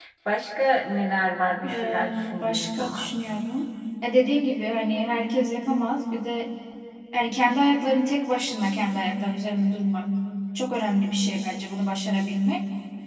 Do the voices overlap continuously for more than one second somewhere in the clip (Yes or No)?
Yes